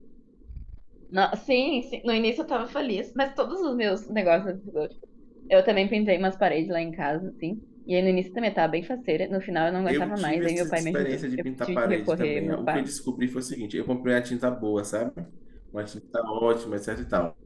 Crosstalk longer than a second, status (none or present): present